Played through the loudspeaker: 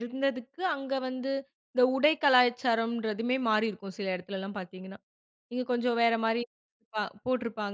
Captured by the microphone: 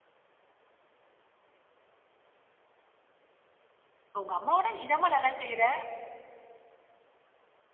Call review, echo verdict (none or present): none